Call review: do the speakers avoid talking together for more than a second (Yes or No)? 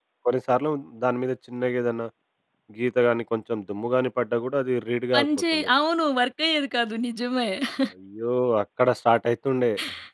Yes